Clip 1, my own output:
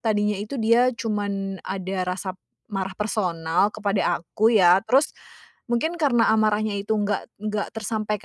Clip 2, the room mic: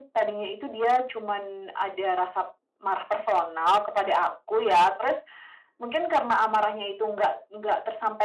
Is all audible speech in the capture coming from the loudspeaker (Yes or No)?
Yes